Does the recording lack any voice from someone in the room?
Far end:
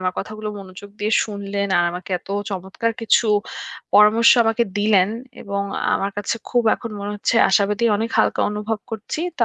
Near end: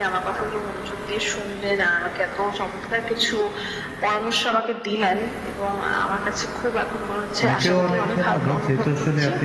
No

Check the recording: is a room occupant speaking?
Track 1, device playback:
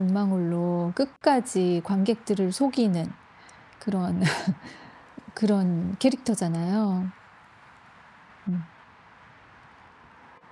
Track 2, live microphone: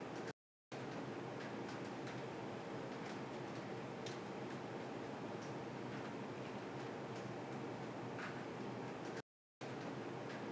No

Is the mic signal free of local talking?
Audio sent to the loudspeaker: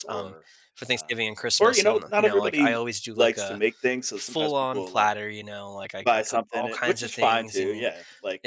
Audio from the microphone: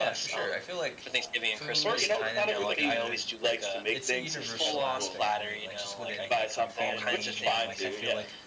No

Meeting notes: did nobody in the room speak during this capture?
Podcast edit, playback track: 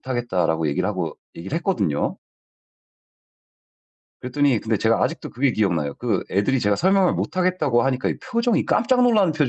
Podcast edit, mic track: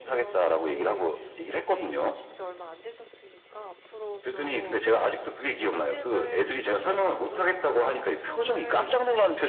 No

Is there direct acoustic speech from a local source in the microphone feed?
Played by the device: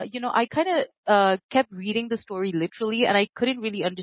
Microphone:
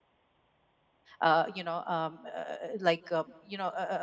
Yes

